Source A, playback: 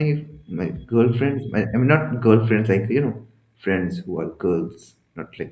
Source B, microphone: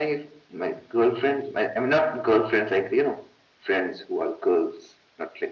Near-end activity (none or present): none